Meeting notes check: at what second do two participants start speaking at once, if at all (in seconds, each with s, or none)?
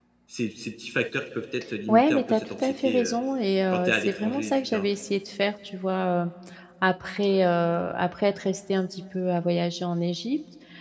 1.9 s